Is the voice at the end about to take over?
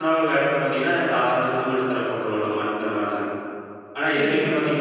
No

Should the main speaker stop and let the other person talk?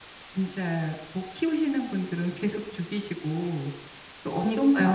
No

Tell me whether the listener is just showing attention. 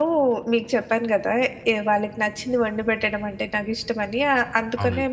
Yes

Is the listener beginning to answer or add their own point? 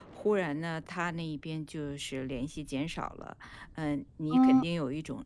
No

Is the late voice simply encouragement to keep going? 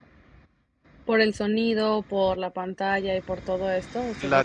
No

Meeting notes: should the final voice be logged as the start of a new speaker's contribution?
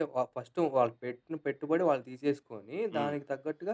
No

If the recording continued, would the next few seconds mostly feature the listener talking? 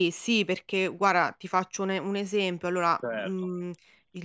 No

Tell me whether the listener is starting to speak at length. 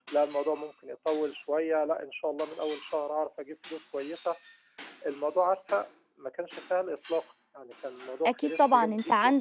Yes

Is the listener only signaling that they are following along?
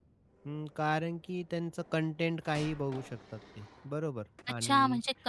No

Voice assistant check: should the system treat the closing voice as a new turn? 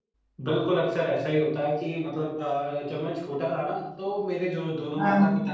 No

